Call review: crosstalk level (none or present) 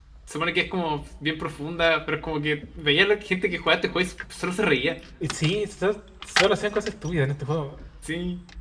none